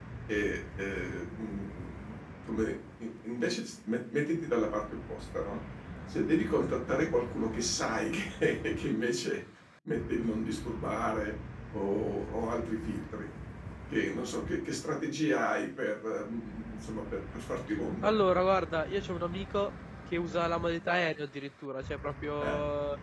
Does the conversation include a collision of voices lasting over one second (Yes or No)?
No